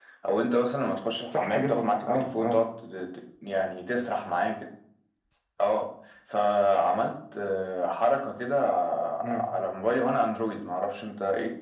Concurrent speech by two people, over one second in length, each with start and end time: 1.4-2.6

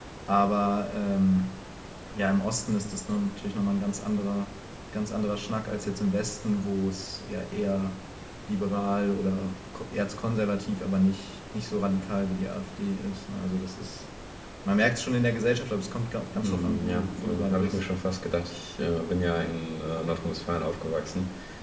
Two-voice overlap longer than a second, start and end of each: 16.4-17.8

